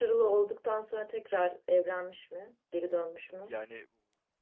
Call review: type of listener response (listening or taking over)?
taking over